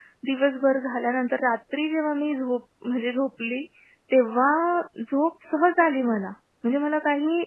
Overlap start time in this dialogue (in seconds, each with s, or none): none